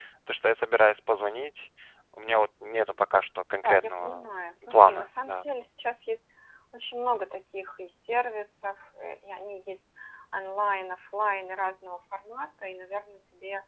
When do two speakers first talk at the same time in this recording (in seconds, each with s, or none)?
3.6 s